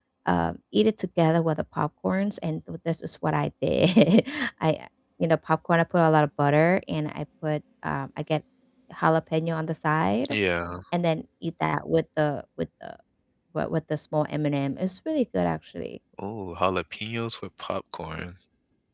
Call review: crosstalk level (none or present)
none